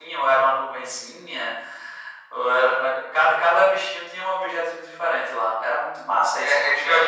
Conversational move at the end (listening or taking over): taking over